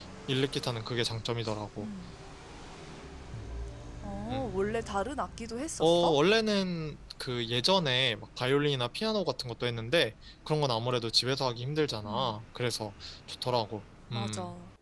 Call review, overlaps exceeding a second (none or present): none